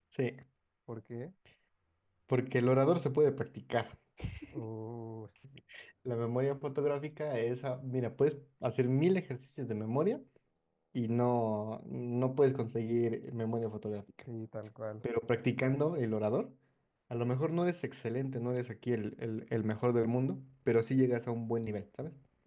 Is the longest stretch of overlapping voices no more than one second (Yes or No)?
Yes